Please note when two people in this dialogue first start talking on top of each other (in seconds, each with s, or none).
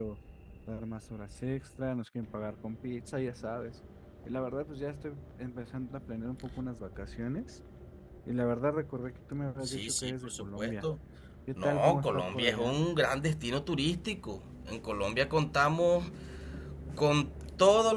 9.6 s